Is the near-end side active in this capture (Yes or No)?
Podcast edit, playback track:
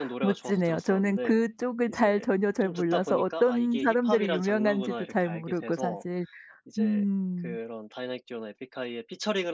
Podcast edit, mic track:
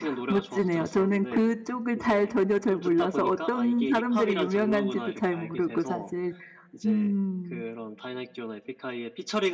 No